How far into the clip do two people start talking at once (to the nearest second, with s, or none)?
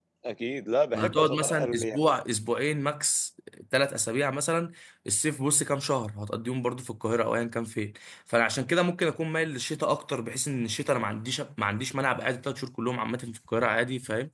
1 s